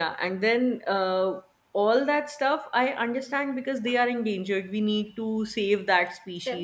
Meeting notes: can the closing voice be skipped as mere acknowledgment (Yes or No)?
Yes